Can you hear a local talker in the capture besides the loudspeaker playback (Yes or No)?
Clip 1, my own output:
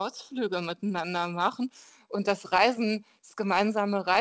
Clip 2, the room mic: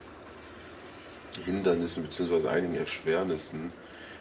Yes